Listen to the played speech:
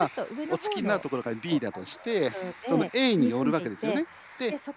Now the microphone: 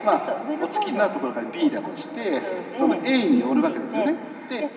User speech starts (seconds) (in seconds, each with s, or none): none